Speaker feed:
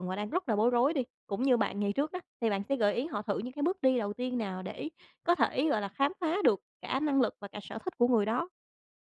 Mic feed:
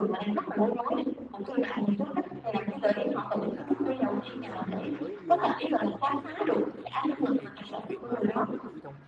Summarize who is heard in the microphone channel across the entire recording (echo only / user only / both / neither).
both